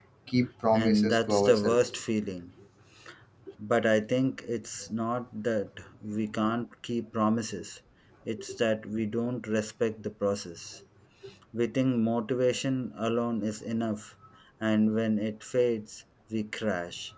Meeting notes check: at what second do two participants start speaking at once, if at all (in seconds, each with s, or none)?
0.7 s